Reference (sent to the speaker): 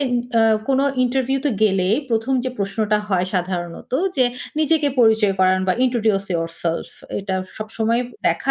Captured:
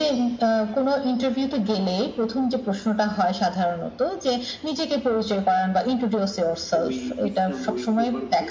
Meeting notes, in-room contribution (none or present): present